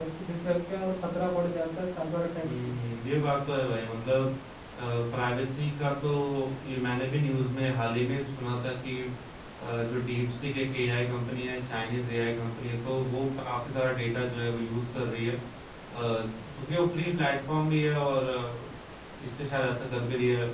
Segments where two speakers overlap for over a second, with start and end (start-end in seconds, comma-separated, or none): none